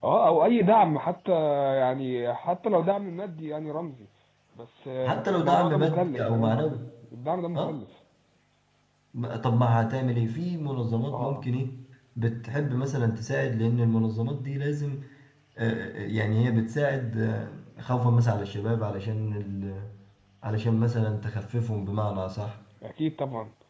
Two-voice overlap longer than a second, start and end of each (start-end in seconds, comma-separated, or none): 5.0-6.7